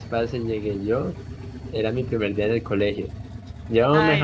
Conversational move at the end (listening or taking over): listening